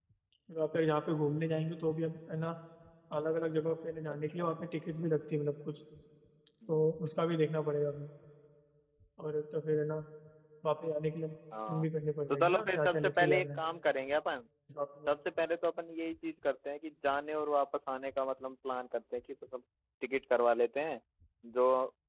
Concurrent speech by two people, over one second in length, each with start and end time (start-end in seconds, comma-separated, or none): 12.3-13.6